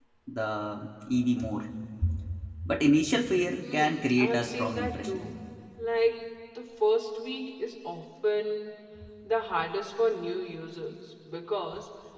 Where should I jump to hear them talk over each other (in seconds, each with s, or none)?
3.6 s